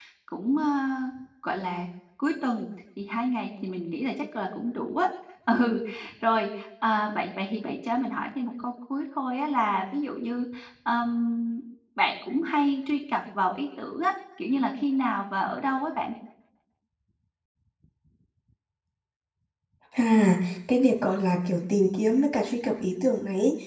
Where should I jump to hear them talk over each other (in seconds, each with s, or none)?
none